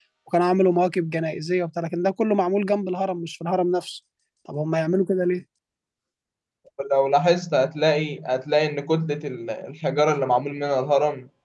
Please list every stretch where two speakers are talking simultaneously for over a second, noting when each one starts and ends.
none

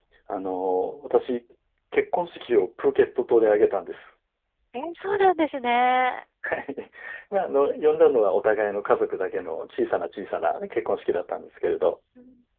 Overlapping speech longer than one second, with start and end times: none

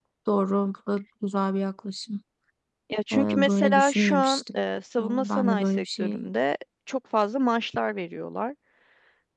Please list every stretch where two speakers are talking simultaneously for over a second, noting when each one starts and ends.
3.1-4.6, 5.0-6.3

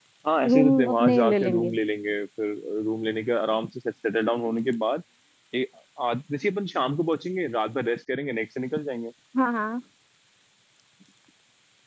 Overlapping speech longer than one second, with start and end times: 0.5-1.8

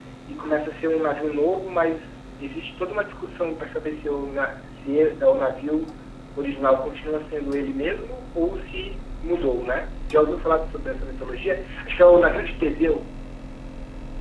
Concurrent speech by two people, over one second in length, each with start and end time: none

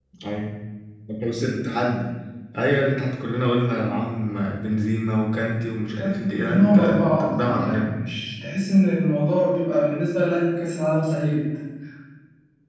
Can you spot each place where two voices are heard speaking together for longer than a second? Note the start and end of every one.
6.0-8.0

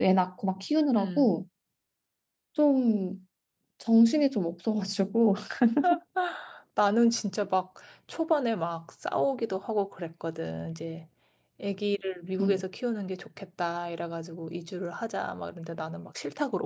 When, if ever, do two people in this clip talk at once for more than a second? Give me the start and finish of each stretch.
none

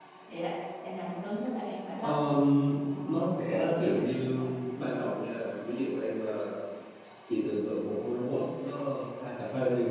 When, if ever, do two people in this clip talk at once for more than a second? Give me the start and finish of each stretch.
3.0-4.5

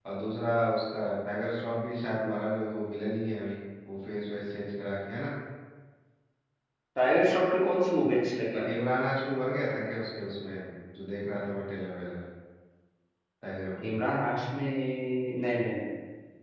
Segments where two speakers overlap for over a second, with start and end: none

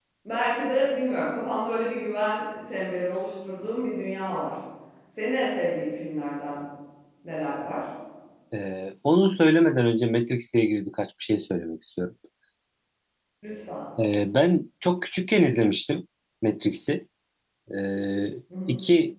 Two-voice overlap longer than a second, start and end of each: none

